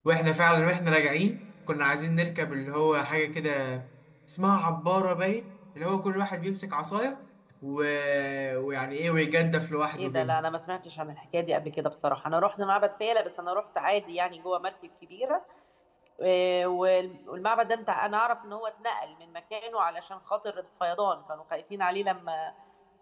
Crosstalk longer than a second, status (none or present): none